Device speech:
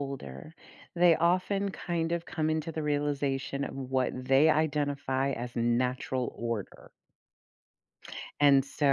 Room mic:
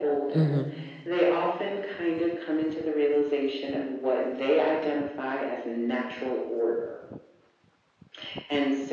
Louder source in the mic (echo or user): user